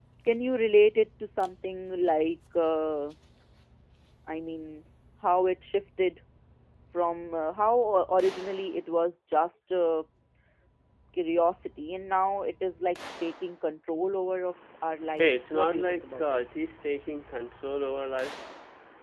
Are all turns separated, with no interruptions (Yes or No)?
No